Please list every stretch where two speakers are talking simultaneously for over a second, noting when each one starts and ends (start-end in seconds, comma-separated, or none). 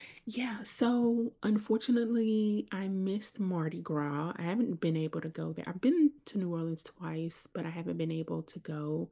none